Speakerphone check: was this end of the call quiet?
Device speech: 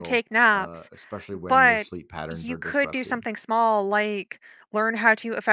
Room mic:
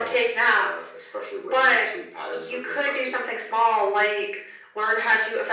Yes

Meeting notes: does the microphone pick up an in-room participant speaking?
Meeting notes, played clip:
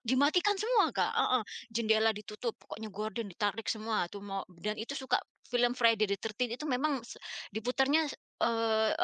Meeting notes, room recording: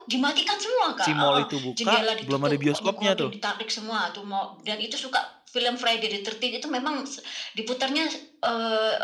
Yes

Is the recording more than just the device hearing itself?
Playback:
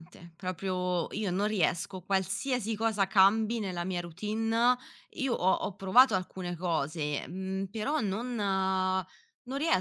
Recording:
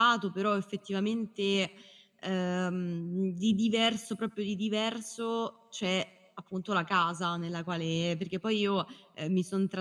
Yes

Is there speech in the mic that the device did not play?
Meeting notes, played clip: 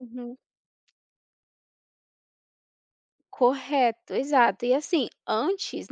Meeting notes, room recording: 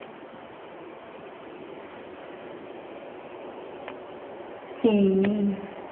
Yes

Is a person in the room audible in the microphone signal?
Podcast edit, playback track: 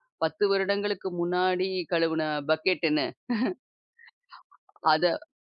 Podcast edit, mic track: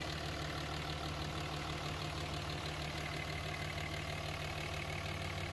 No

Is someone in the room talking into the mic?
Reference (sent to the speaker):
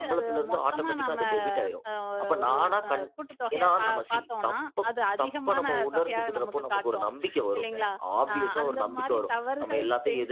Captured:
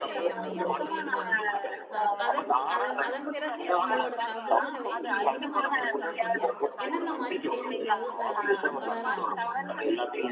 Yes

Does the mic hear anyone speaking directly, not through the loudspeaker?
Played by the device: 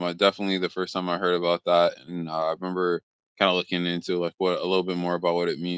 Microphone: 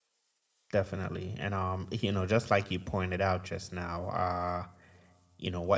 Yes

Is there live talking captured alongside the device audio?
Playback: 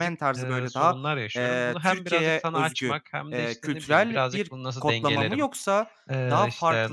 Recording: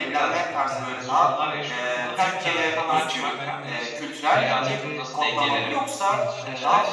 Yes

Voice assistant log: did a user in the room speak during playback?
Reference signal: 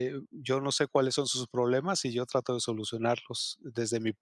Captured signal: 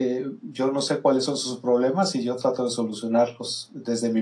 No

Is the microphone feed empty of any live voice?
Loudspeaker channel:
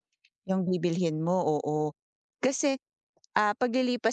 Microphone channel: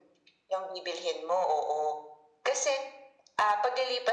Yes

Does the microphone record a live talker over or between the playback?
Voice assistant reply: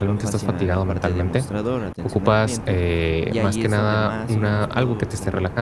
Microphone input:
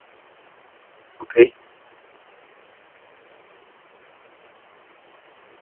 Yes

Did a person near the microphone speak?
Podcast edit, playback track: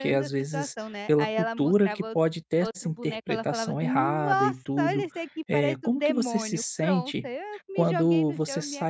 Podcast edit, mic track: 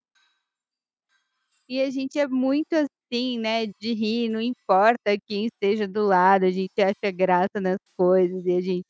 Yes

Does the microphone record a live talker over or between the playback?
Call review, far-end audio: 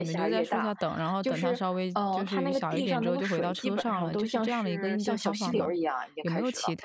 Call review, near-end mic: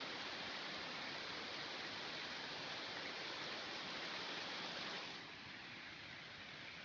No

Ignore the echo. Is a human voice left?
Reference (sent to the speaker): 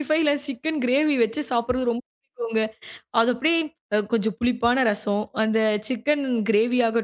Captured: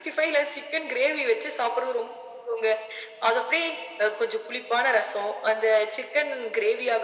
No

